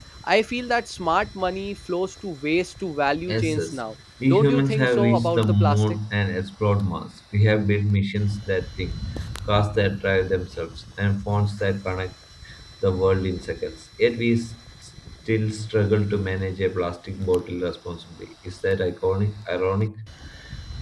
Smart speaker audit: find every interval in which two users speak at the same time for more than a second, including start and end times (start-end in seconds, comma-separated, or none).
4.3-5.8